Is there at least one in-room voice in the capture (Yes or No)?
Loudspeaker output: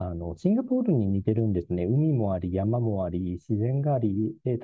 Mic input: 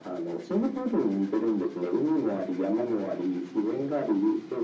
No